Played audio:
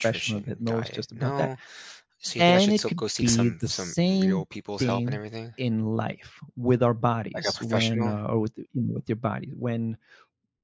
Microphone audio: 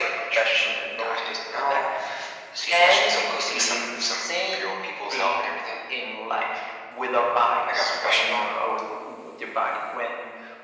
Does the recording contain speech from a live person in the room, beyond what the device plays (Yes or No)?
No